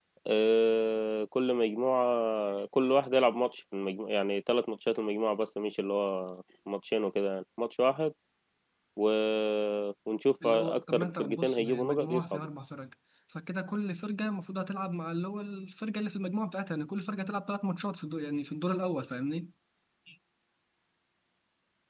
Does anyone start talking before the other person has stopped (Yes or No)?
Yes